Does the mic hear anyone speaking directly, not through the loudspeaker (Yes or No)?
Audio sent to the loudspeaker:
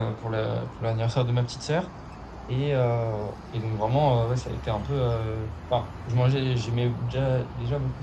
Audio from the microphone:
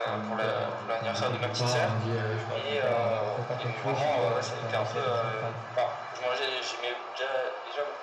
Yes